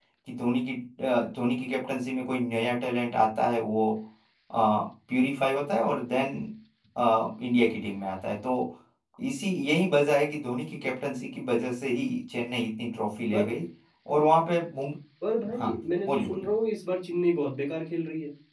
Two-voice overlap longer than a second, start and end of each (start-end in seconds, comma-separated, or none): none